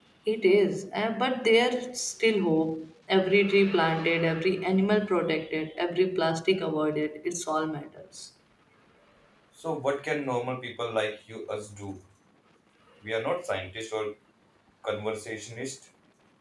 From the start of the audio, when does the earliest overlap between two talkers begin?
none

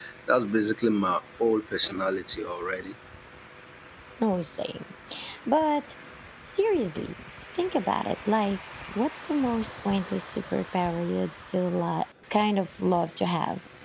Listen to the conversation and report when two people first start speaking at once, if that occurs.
none

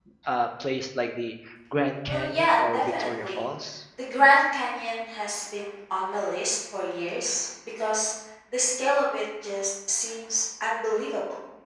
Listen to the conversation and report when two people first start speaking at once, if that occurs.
2.1 s

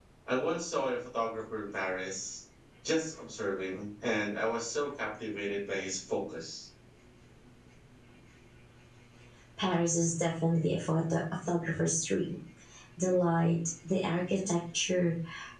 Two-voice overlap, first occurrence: none

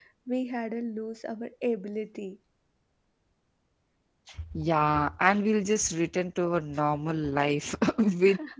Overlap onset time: none

